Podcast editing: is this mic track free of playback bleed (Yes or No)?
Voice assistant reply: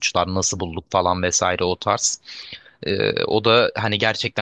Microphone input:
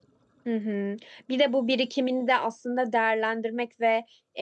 Yes